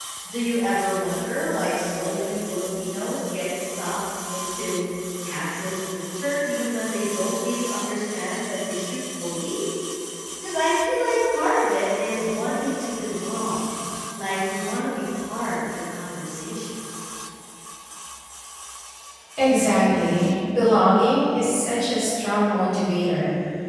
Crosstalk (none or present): none